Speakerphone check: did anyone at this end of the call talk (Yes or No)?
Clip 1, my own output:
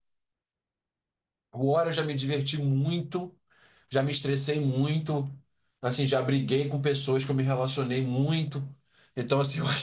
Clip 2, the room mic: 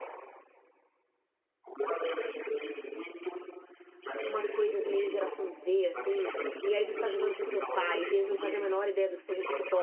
Yes